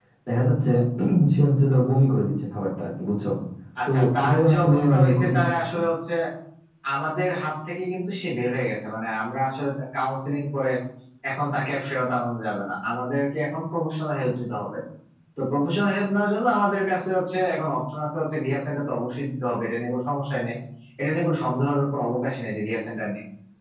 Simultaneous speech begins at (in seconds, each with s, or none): 3.9 s